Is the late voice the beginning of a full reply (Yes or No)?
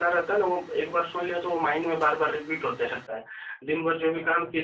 No